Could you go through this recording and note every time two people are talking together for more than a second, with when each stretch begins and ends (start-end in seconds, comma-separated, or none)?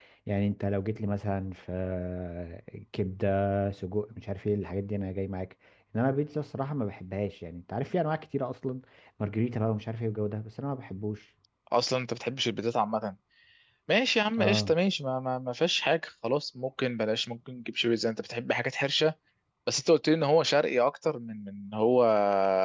none